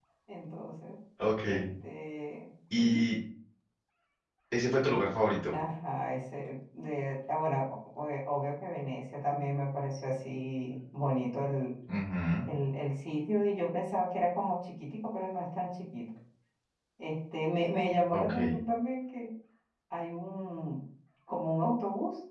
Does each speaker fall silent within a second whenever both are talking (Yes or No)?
Yes